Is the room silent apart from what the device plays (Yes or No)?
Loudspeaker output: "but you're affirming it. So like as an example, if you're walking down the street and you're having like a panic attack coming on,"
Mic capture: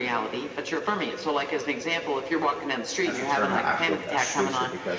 No